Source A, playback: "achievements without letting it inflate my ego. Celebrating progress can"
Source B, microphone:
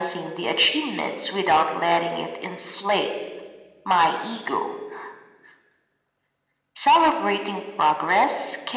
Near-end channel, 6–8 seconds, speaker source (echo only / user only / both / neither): echo only